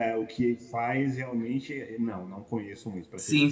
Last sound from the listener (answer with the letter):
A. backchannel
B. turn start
B